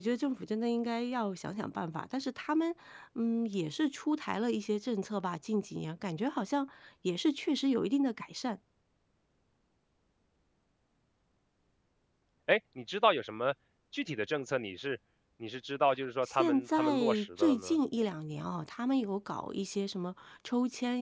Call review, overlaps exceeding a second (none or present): present